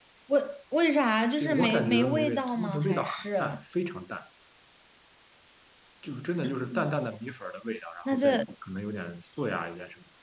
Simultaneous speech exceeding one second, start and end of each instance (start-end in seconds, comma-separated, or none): 1.4-3.6